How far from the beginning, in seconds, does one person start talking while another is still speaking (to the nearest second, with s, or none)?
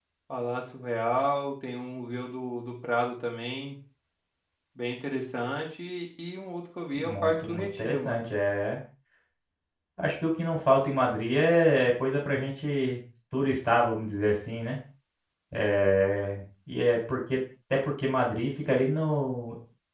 7 s